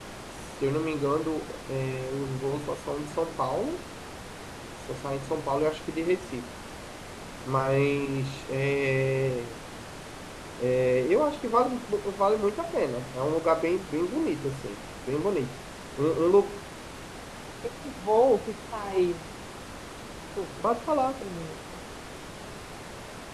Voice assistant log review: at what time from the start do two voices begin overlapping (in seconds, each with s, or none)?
none